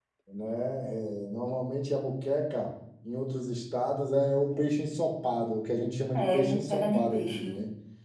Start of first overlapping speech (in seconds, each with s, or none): 6.1 s